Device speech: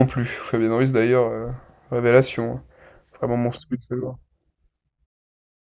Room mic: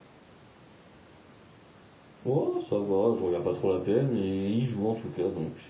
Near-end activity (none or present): present